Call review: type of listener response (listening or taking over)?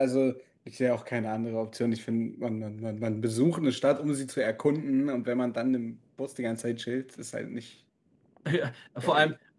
taking over